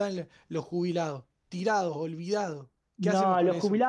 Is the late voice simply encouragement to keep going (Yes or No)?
No